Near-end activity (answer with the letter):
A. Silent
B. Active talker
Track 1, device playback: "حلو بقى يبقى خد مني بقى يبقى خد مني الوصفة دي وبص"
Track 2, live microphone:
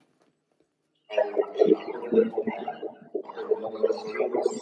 A